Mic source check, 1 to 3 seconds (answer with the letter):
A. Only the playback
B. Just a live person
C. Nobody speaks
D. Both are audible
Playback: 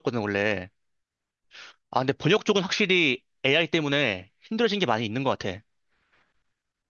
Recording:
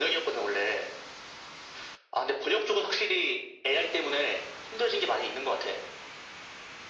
A